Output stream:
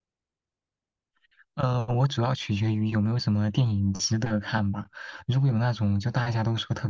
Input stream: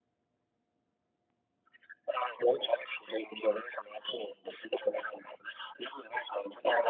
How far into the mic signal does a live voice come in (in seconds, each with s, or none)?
none